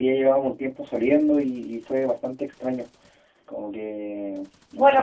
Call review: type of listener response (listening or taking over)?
taking over